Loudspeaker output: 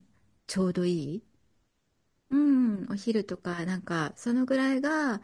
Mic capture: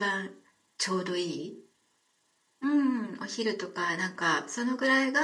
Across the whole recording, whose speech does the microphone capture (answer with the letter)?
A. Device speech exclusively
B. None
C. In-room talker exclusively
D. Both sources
A